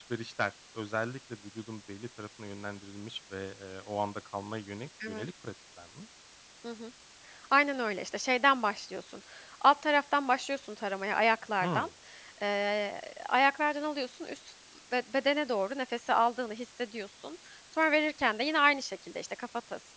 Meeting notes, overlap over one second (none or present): none